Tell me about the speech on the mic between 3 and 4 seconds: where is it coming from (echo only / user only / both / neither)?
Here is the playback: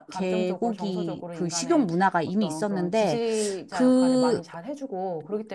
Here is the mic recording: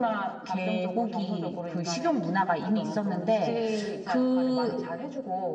echo only